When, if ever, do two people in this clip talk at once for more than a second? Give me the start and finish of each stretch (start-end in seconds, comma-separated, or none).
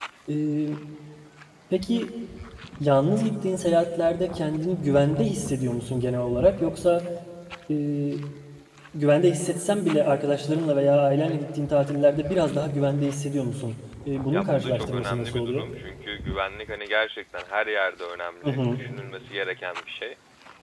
14.3-15.7